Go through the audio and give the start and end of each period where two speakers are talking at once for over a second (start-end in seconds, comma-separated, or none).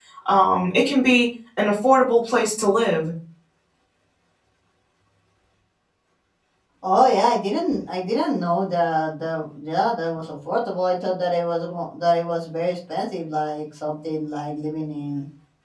none